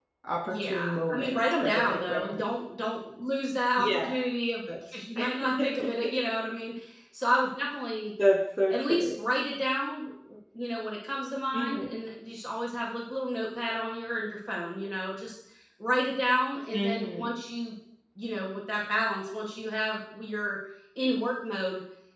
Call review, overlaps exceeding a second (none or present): present